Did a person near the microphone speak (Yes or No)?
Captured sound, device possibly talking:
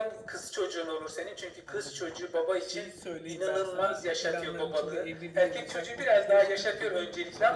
Yes